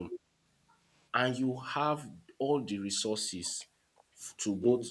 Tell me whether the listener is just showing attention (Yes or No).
Yes